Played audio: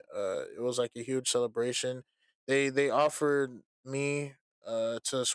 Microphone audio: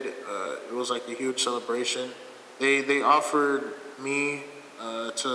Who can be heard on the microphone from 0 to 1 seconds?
echo only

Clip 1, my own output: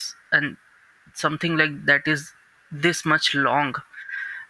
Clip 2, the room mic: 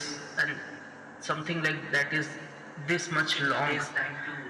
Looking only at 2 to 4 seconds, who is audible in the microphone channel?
both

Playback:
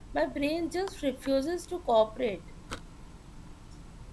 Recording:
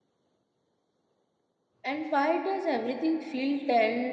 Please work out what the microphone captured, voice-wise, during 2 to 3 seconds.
user only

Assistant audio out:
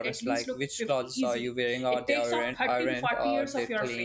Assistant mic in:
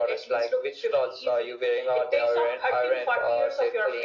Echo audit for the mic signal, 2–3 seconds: echo only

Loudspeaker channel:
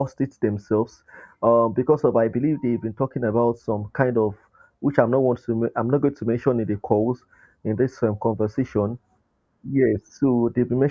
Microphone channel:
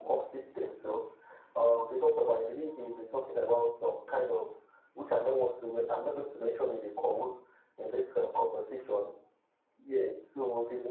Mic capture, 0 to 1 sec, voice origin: echo only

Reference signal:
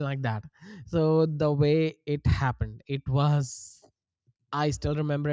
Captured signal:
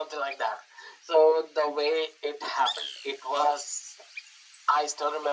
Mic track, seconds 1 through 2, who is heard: echo only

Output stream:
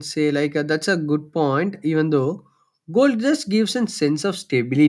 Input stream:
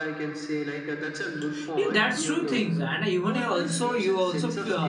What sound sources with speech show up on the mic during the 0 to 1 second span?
echo only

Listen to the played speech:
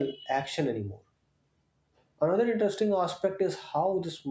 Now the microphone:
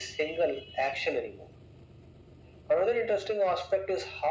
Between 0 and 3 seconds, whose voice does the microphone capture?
echo only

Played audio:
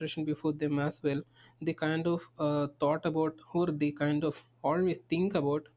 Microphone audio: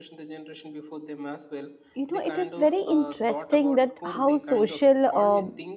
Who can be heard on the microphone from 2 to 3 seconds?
both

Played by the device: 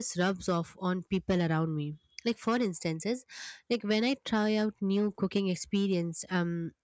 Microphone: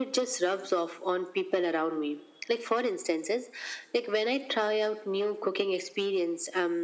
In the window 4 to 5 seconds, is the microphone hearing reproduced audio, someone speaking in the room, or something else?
echo only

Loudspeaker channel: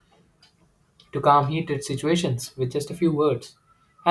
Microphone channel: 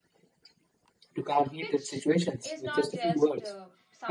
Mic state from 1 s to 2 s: both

